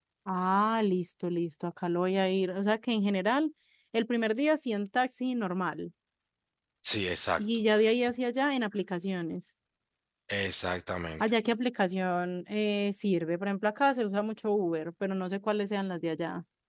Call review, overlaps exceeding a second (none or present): none